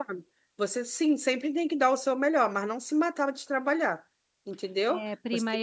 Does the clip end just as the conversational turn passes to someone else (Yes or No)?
Yes